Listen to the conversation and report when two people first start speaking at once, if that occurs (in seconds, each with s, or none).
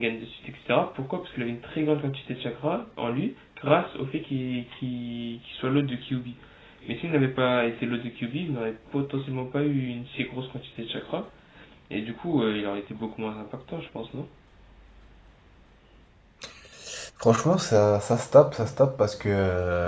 none